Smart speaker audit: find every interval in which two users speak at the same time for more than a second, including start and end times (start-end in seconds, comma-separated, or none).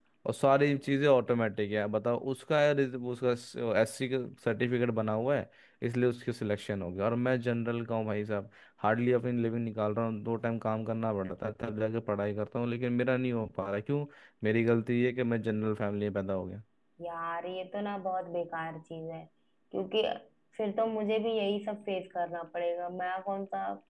none